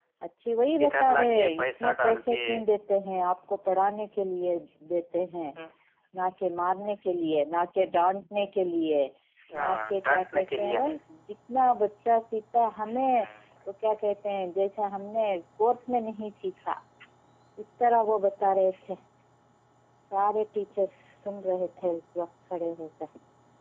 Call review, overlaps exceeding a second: present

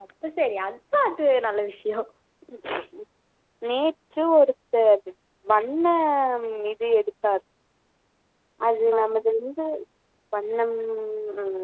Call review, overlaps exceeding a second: none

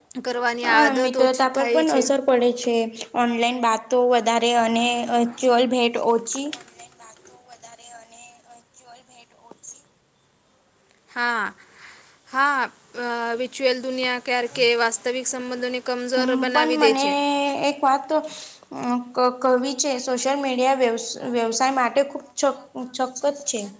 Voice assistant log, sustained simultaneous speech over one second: present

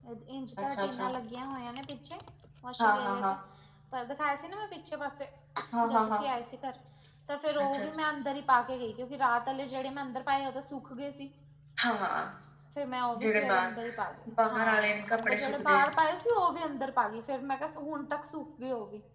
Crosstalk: present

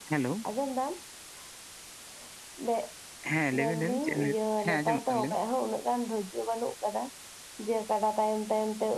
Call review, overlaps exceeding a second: present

